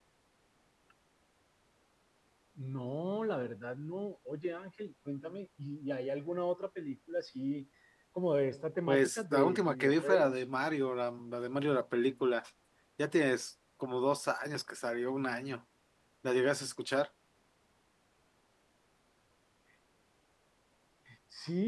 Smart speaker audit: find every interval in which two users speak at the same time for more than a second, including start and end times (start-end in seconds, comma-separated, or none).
8.9-10.4